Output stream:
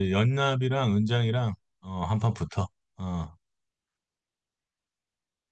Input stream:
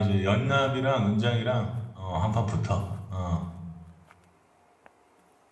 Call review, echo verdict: present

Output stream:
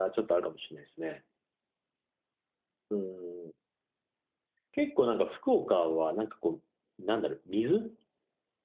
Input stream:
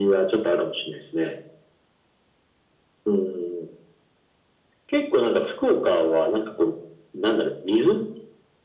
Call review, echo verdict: present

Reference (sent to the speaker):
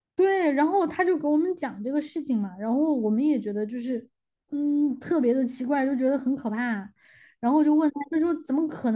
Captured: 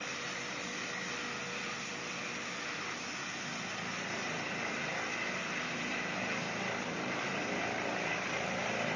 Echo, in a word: none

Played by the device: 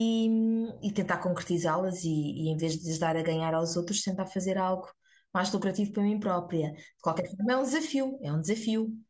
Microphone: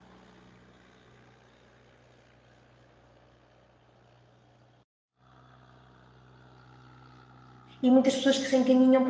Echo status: none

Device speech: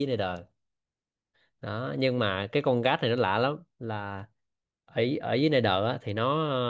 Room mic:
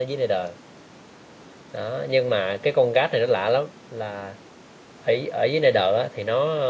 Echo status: present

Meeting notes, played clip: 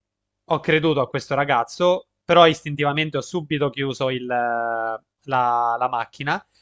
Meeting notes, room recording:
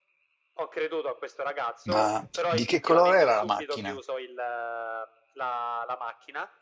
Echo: present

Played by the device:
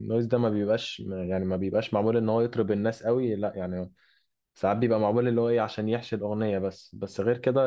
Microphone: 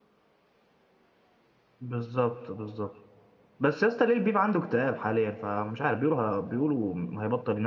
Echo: none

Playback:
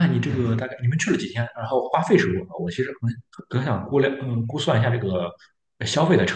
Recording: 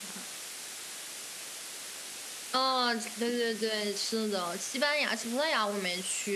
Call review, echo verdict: none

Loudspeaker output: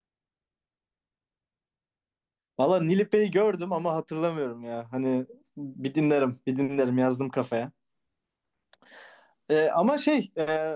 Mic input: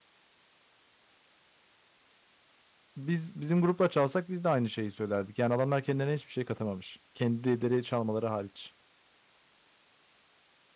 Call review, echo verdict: none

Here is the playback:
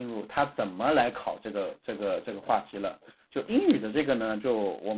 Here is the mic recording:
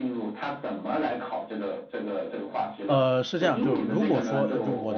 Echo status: present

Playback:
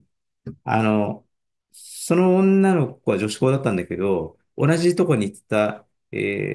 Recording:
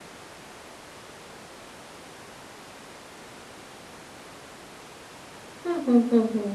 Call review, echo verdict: none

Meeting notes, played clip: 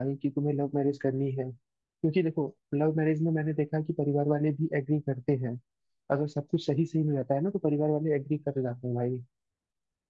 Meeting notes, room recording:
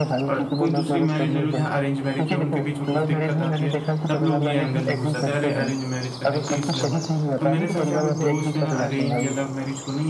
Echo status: present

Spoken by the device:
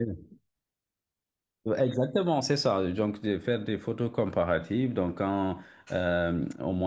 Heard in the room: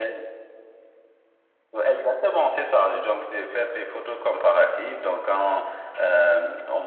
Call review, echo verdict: present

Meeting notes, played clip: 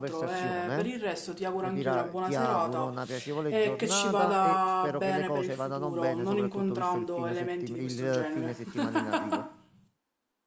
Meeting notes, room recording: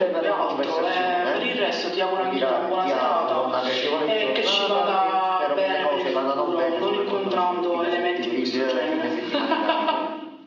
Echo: present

